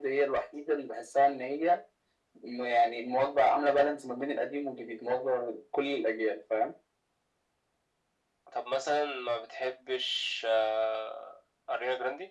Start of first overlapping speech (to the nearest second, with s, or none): none